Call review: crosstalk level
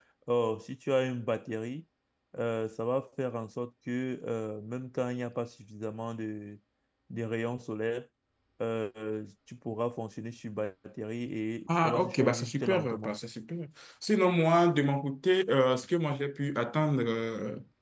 present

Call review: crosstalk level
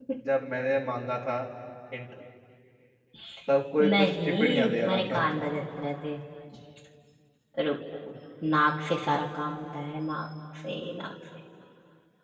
present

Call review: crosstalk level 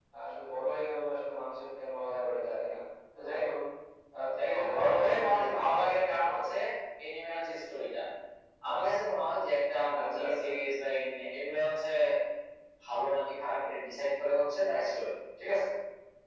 present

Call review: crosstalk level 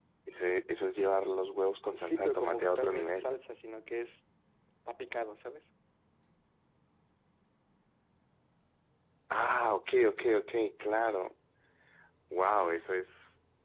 present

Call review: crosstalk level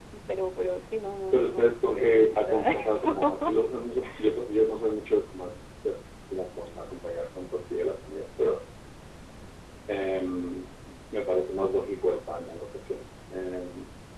present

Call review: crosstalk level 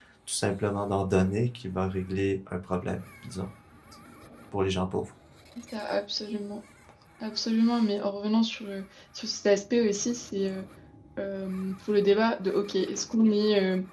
none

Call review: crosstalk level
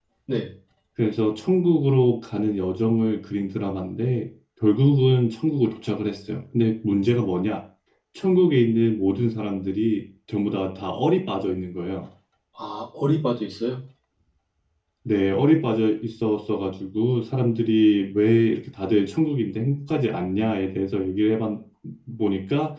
none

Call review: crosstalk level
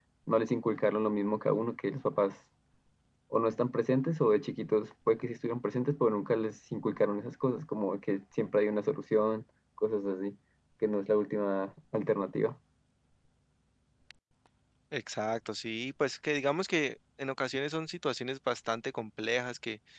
none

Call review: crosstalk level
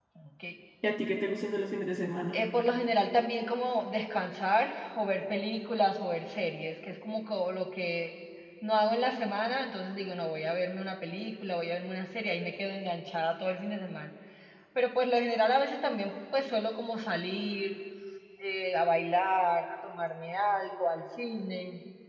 none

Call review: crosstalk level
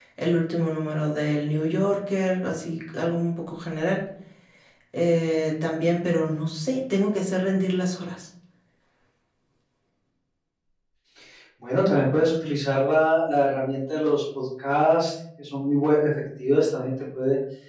none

